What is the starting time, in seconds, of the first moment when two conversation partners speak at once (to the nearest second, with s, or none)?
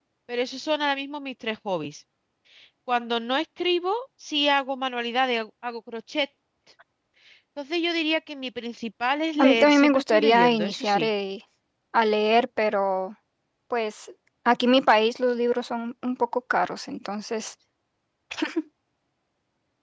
9 s